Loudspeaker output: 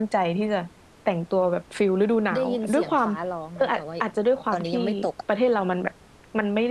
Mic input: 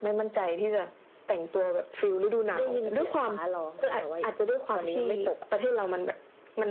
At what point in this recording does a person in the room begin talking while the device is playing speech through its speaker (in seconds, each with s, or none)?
none